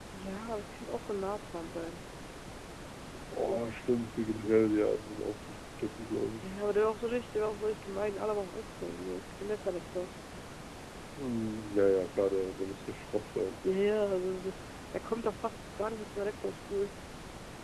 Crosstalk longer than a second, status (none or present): none